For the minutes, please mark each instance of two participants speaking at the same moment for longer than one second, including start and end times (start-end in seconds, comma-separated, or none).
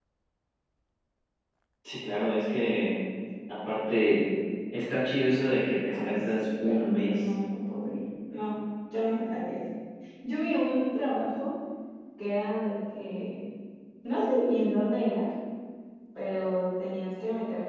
5.9-7.1